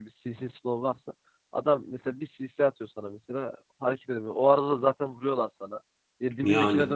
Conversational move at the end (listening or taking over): listening